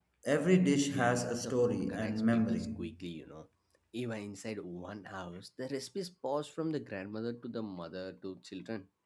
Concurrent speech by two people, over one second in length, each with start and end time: 0.9-2.7

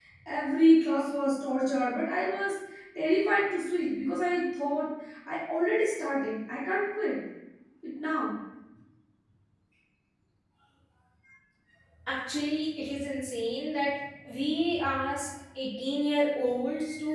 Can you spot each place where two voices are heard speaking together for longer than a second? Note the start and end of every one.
none

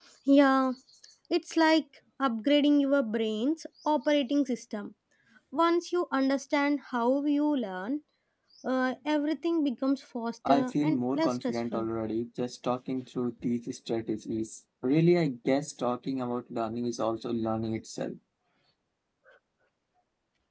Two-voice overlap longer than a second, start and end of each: 10.5-11.9

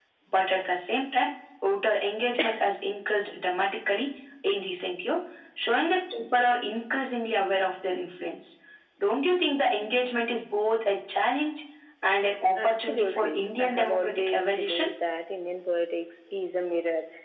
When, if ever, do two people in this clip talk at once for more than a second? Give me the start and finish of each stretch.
12.6-14.9

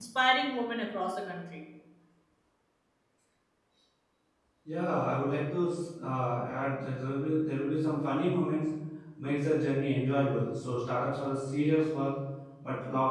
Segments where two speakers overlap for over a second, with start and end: none

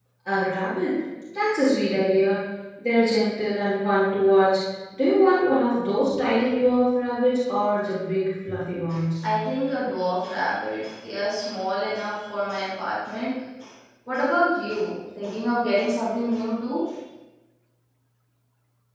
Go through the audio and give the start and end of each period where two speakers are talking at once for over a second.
none

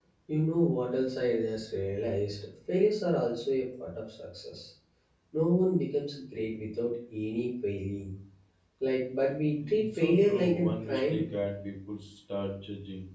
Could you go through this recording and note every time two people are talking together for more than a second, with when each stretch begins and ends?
9.7-11.2

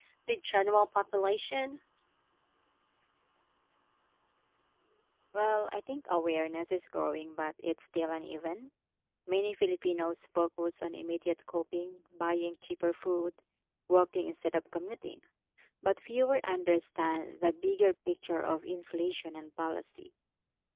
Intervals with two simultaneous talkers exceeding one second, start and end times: none

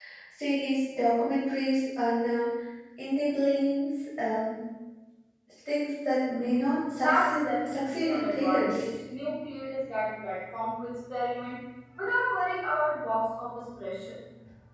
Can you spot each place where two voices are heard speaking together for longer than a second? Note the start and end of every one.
7.0-8.8

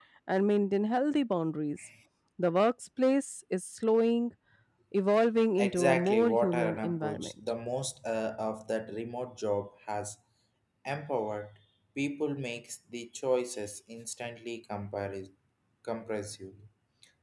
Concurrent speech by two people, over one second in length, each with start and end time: 5.6-7.3

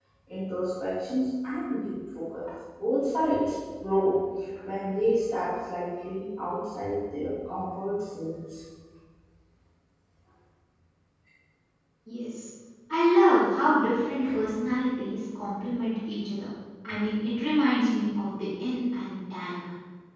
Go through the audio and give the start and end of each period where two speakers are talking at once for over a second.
none

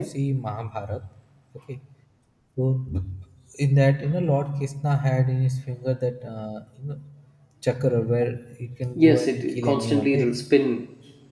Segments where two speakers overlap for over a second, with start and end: 8.9-10.3

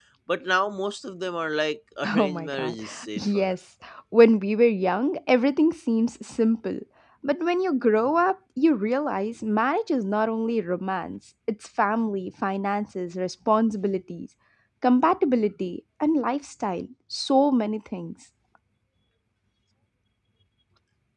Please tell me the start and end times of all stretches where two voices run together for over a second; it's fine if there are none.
2.2-3.5

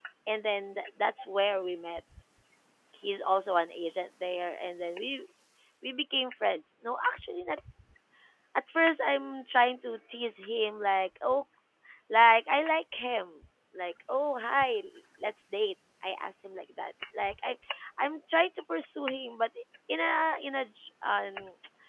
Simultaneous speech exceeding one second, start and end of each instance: none

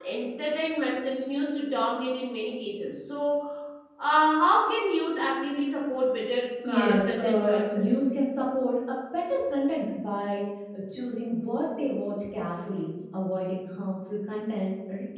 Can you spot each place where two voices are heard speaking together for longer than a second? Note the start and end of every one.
6.7-8.0

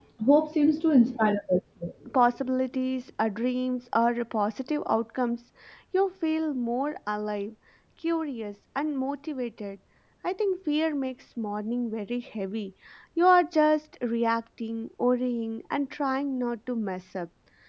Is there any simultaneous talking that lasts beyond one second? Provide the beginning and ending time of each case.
none

